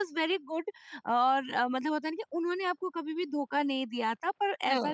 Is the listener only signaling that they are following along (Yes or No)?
Yes